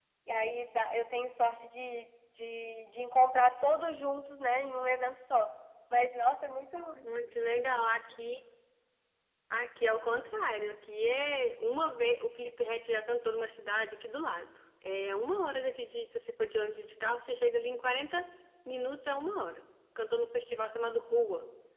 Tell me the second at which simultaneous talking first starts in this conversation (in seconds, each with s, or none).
none